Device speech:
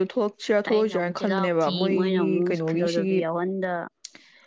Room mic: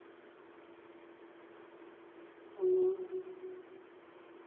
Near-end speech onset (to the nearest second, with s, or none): 3 s